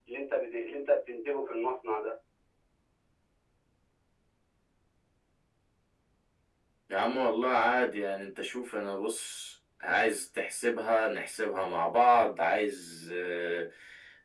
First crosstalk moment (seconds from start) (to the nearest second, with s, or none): none